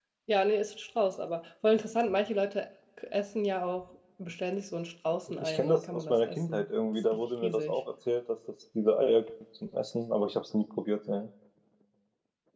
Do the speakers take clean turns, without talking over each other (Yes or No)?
No